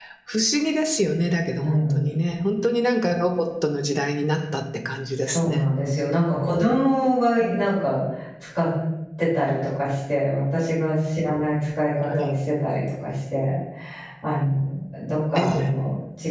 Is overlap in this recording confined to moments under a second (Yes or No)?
Yes